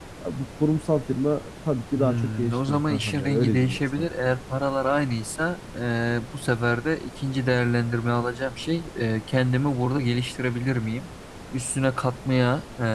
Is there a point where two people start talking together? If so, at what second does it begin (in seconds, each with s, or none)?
2.0 s